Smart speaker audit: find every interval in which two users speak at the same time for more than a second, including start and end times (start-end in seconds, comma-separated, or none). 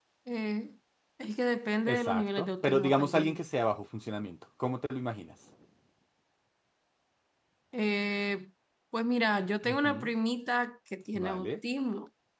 1.9-3.4